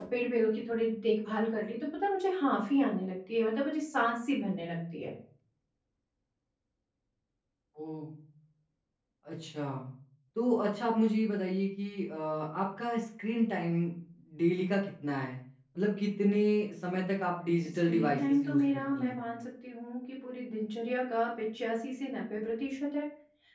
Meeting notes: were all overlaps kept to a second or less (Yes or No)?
No